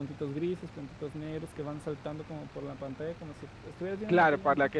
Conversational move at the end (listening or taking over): taking over